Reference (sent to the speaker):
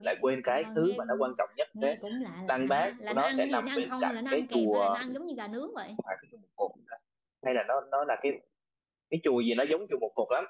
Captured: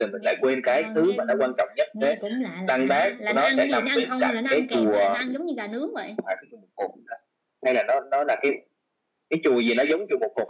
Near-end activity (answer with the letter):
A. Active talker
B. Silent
B